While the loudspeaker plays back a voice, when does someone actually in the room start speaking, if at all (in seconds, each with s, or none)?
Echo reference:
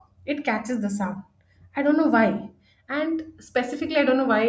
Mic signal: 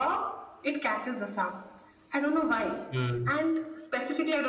2.9 s